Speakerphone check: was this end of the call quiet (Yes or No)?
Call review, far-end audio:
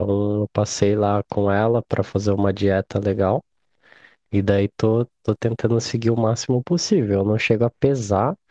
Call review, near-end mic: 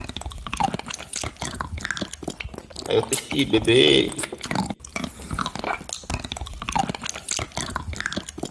No